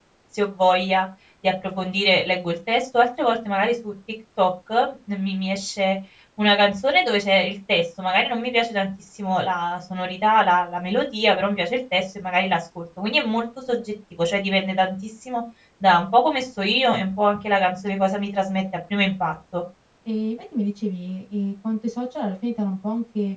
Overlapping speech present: No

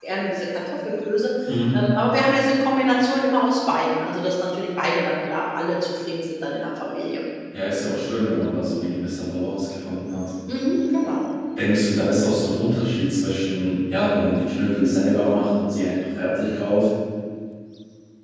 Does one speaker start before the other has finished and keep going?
No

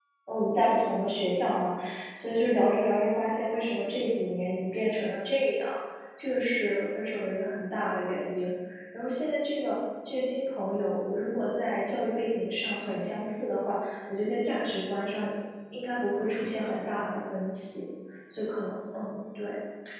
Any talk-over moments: No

